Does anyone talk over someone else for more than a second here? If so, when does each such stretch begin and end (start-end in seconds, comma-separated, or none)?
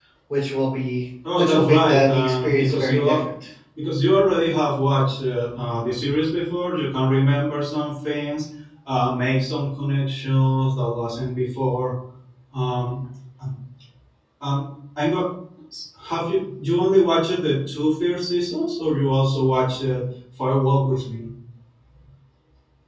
1.3-3.2